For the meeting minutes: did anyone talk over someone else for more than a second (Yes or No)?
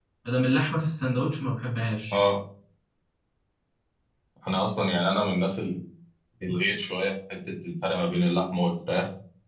No